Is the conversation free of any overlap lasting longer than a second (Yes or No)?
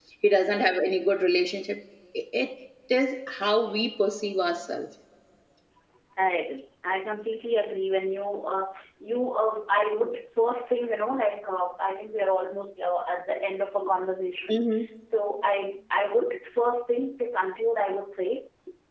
Yes